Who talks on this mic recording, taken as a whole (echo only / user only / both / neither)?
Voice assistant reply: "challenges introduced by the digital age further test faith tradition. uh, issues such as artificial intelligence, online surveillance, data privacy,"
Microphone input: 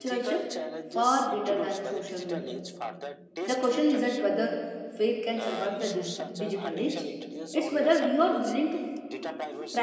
both